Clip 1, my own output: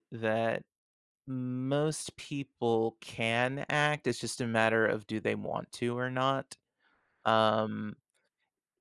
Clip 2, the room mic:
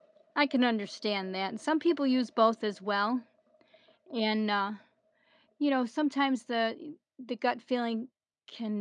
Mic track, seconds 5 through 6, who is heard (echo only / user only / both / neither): user only